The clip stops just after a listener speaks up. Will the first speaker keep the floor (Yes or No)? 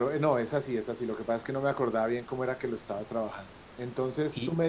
Yes